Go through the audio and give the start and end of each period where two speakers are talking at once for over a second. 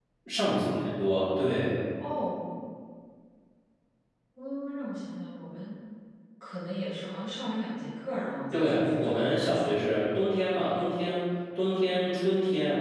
8.5-9.7

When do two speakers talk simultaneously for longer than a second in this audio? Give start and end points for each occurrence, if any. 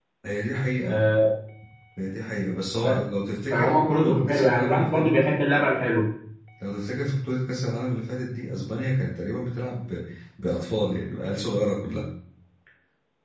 3.5-5.4

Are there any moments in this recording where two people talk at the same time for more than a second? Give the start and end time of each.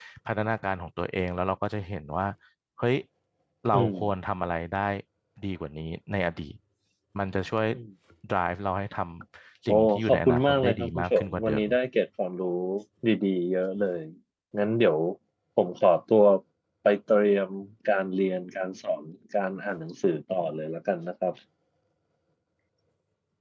9.7-11.6

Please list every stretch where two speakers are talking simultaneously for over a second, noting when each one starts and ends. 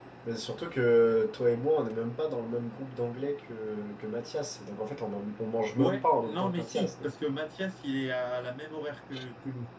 5.8-7.1

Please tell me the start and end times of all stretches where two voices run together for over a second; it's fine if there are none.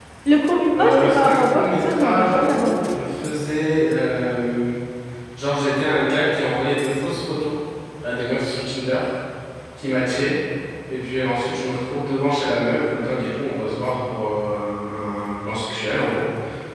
0.8-2.9

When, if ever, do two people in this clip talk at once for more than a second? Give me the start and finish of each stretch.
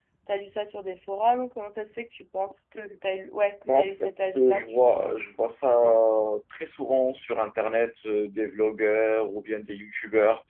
3.6-5.2

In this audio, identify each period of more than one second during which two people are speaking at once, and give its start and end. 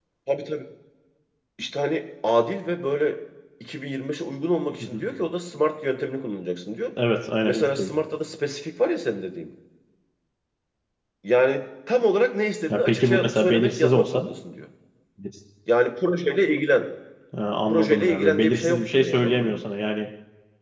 12.7-14.2, 17.7-19.6

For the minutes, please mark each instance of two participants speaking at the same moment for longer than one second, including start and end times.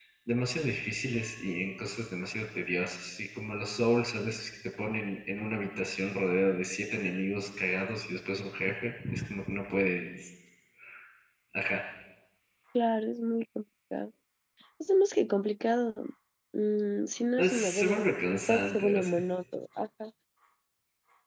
17.4-19.2

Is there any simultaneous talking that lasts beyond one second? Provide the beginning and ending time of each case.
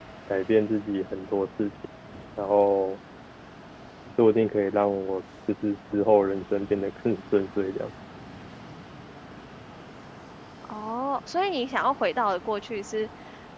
none

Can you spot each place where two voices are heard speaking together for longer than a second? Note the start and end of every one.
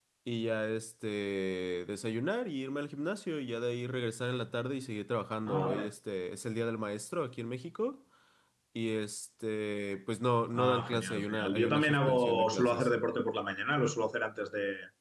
10.5-12.9

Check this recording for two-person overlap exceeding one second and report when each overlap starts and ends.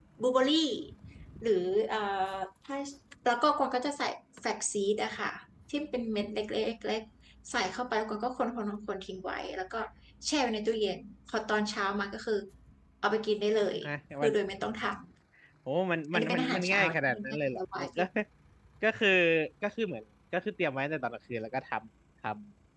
16.1-17.6

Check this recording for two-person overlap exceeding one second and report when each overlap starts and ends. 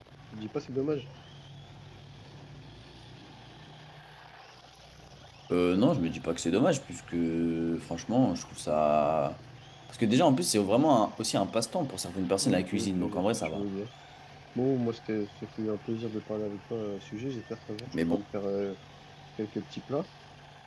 12.3-13.6

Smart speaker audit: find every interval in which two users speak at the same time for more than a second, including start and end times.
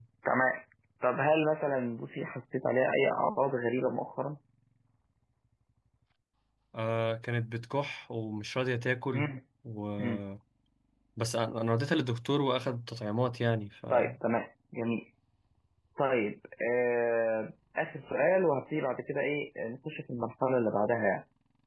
none

